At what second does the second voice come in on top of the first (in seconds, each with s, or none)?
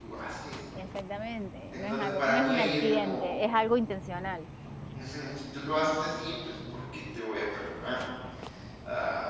1.7 s